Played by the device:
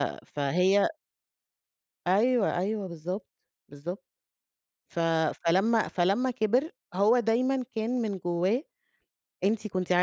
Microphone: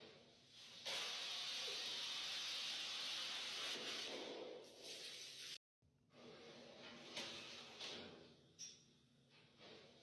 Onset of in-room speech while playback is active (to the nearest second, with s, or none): none